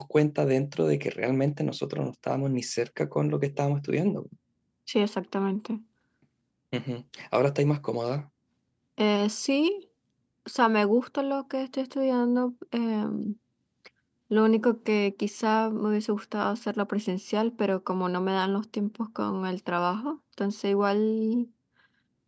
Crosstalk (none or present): none